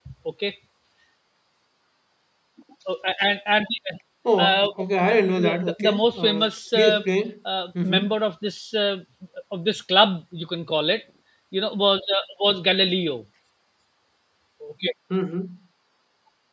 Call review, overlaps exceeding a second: present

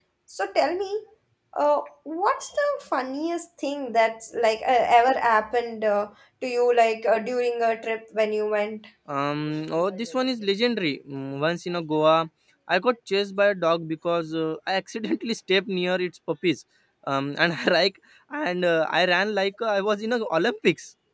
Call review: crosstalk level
none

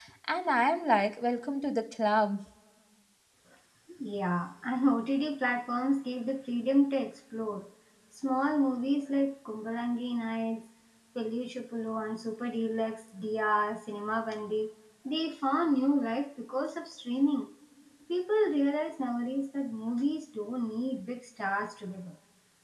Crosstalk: none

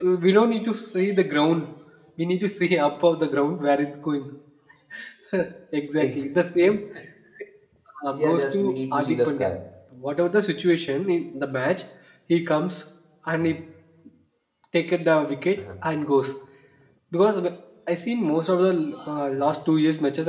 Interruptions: present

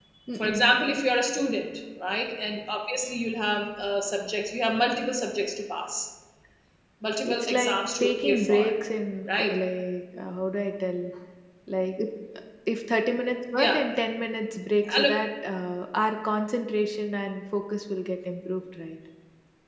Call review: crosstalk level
present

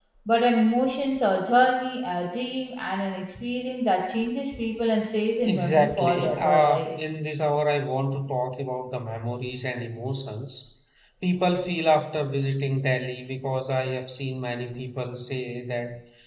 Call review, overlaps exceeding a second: present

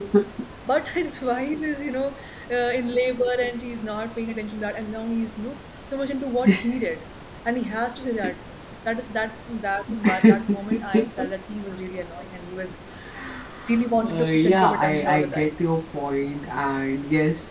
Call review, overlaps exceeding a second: present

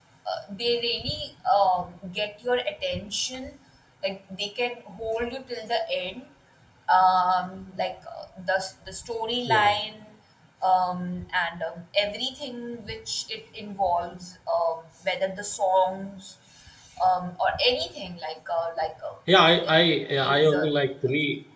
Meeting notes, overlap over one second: none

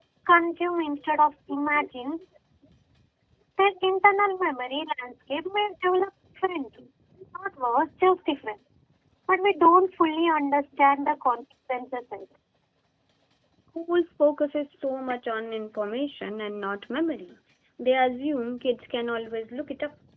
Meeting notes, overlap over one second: none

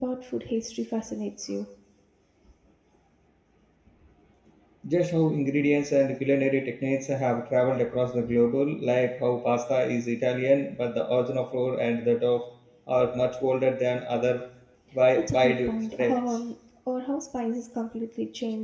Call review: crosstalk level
present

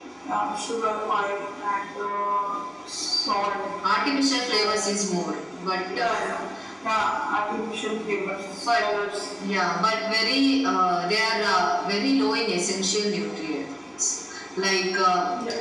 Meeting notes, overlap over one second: none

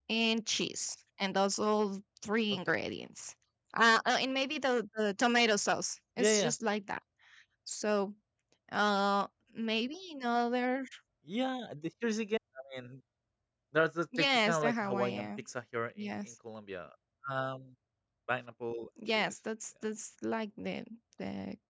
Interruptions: present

